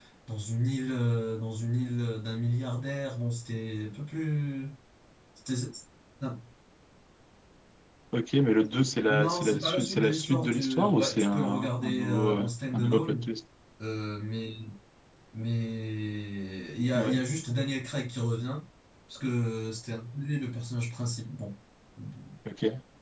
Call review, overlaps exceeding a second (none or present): present